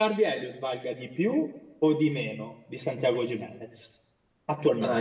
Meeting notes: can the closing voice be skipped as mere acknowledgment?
No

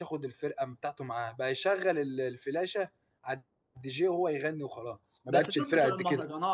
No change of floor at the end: No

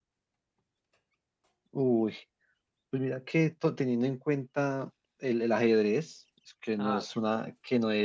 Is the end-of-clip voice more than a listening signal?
No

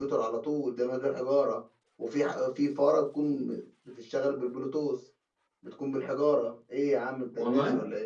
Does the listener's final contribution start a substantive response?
Yes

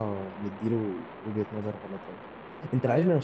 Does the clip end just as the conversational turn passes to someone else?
No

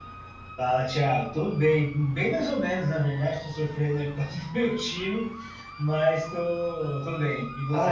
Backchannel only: No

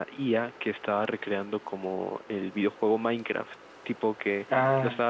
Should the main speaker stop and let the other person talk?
No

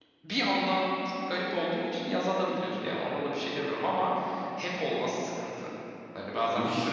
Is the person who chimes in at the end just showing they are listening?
Yes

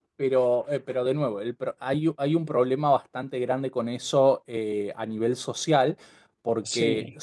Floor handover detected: No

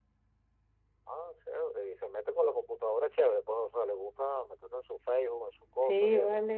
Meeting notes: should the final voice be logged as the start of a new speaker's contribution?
Yes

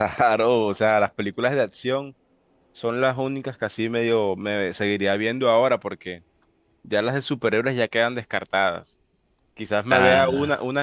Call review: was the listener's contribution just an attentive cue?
Yes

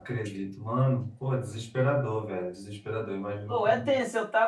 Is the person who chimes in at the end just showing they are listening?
No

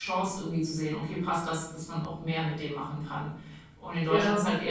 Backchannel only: Yes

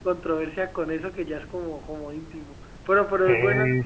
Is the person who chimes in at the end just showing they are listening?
No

